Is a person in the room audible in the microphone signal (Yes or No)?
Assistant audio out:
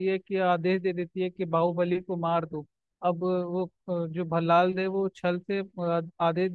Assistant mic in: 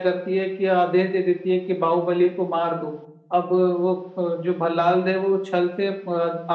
No